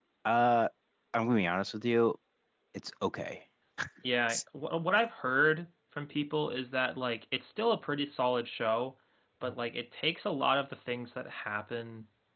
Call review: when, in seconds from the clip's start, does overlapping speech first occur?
none

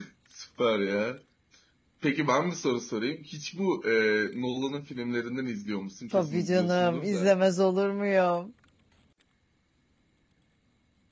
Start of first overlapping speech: 6.1 s

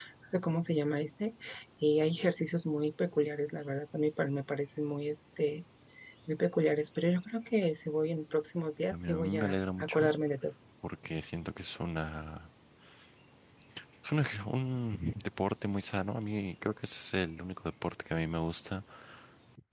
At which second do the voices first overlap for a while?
8.9 s

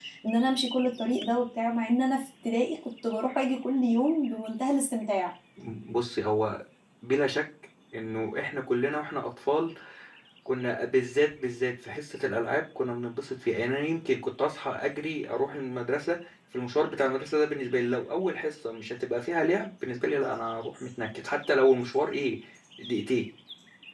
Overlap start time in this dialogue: none

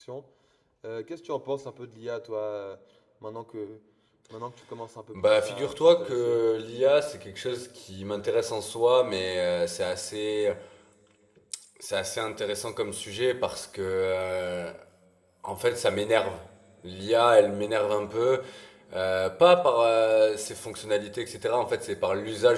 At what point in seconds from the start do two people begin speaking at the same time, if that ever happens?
5.1 s

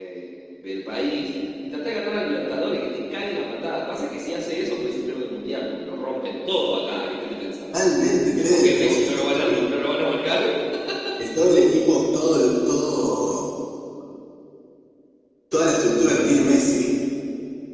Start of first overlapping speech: 8.4 s

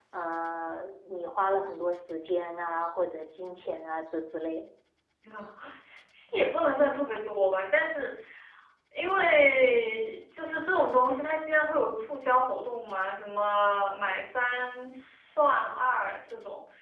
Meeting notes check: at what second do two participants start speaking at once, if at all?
none

